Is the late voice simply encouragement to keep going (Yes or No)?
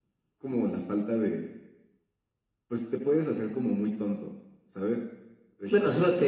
No